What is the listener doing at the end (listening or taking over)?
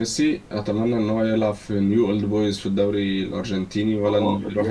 taking over